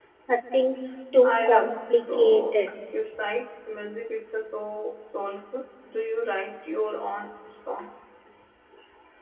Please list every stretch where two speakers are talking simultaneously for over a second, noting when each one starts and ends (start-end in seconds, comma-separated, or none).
1.2-2.6